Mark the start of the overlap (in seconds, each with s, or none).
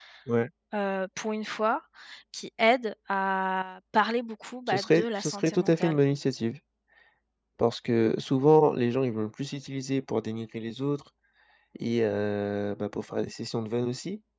4.7 s